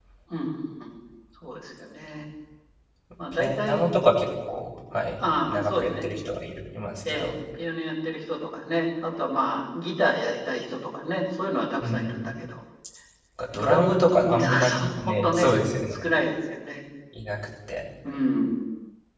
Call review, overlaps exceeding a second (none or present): present